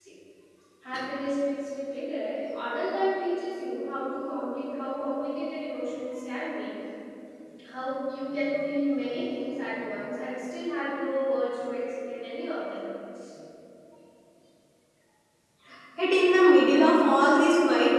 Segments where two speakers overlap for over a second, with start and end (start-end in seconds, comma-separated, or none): none